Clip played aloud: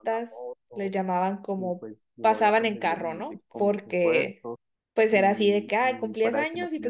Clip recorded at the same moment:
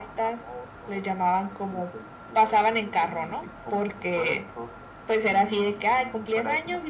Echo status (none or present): present